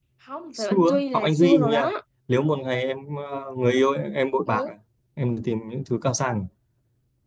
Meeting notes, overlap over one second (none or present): present